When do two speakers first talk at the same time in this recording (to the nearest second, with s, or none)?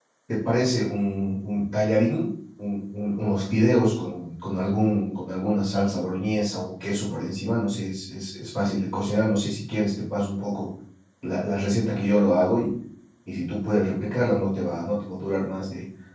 none